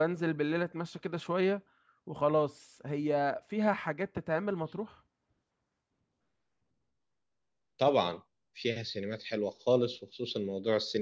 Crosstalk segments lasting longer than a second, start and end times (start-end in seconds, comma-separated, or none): none